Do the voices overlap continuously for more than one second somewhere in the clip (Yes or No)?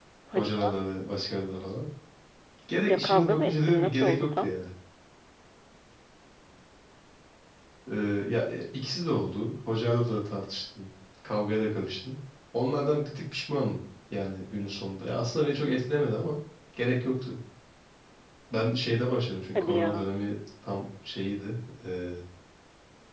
Yes